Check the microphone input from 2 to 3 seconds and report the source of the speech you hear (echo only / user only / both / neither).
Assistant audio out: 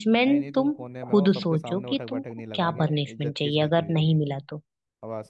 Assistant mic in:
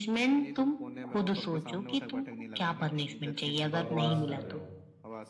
echo only